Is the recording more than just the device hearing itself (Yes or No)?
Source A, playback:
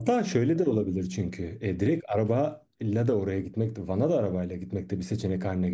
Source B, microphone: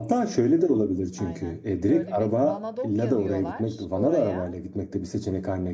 Yes